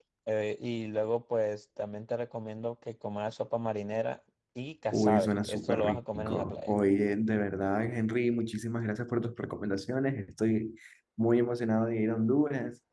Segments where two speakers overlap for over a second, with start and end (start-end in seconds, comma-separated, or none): 4.9-6.7